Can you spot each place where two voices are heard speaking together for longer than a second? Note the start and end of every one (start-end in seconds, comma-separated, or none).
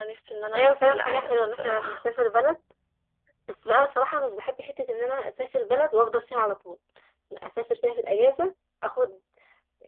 0.5-2.0